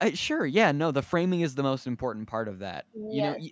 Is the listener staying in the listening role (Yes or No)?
Yes